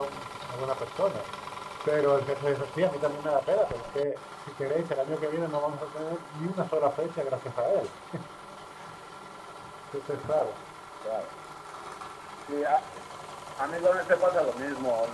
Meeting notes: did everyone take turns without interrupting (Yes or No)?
Yes